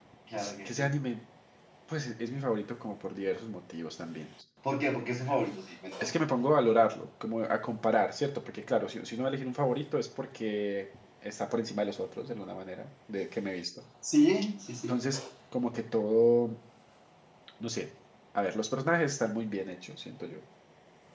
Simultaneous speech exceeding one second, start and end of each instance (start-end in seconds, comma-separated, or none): none